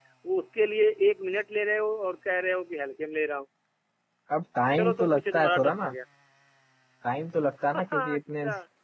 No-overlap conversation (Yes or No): No